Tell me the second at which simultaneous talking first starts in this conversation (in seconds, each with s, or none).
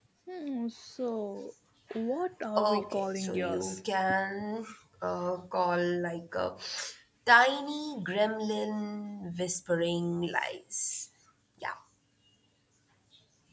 2.6 s